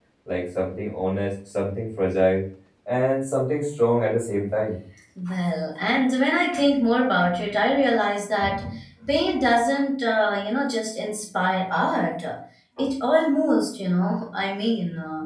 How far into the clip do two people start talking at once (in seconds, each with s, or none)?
none